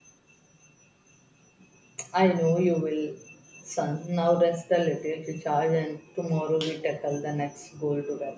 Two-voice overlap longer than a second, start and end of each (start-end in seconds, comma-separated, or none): none